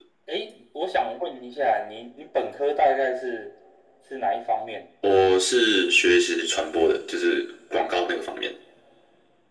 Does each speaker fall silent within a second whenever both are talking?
Yes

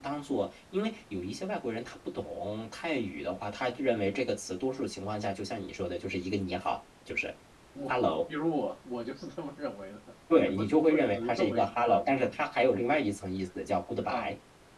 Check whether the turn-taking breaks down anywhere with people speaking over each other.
Yes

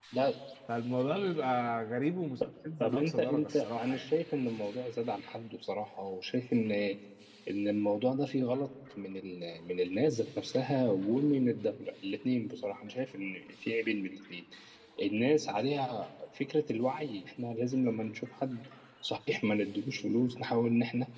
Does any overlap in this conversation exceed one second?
Yes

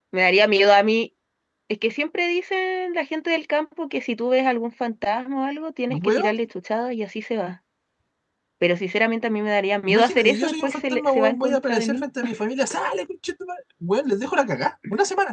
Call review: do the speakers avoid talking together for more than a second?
No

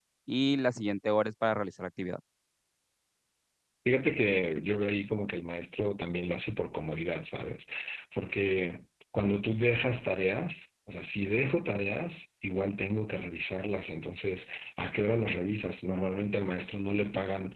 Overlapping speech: No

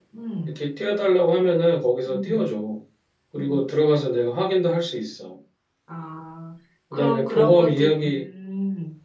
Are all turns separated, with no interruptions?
No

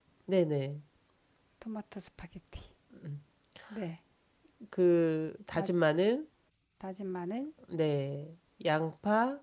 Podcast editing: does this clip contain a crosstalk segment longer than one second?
No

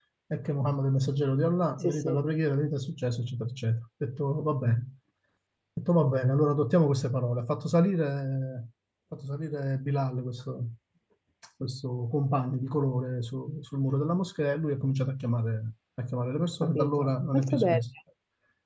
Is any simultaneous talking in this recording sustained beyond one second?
Yes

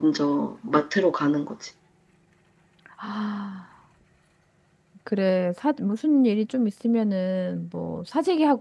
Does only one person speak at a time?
Yes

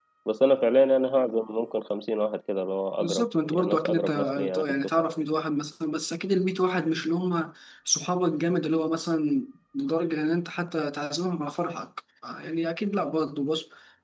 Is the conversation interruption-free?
No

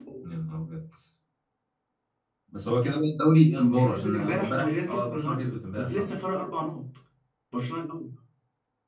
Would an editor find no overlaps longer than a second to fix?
No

